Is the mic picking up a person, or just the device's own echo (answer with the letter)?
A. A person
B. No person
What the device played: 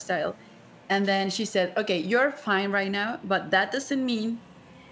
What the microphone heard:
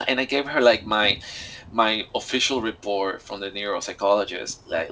A